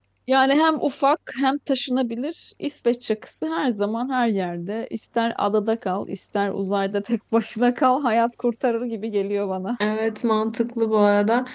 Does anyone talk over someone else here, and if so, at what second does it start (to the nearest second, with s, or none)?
none